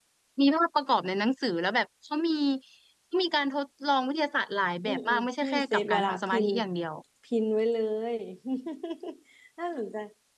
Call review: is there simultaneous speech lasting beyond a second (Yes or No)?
Yes